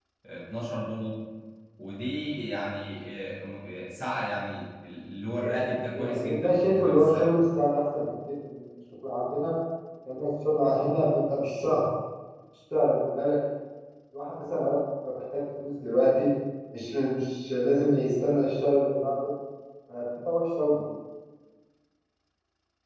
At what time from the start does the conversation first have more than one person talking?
5.4 s

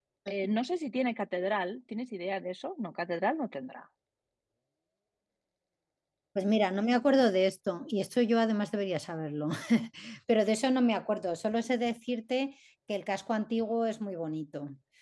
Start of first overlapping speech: none

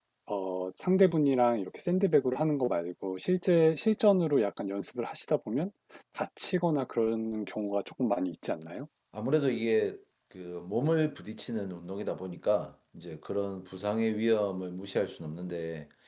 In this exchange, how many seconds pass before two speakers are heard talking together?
none

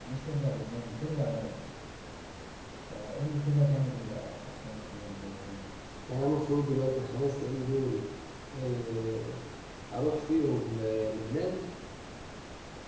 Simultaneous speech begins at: none

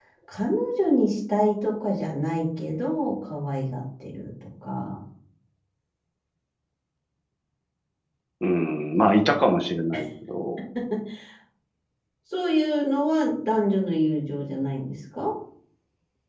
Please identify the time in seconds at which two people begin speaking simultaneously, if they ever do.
none

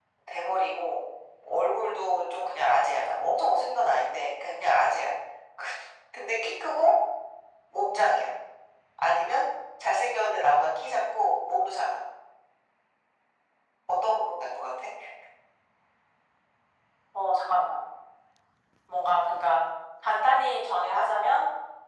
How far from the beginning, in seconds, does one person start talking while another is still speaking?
none

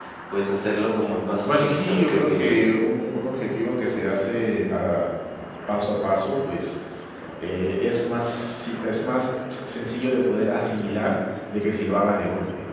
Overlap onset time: 1.4 s

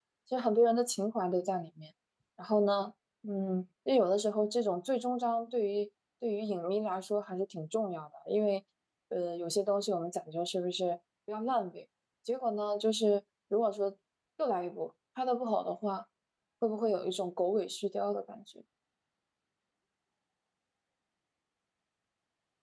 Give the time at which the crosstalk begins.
none

